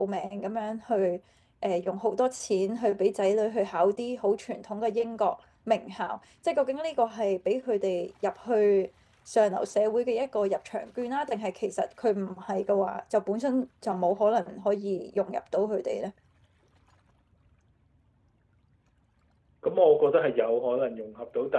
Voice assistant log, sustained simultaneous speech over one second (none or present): none